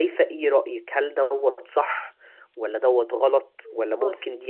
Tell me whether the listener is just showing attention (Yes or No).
Yes